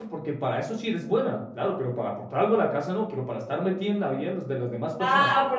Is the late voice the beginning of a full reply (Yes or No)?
Yes